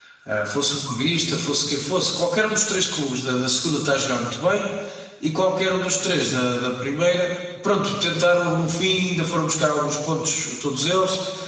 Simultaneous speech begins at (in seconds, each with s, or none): none